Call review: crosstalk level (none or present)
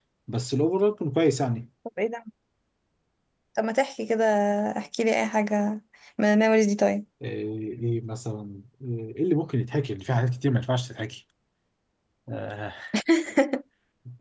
none